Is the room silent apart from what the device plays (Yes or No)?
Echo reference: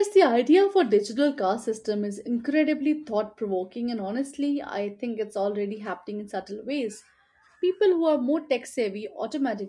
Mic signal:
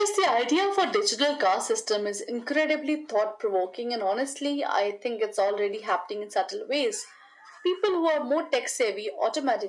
Yes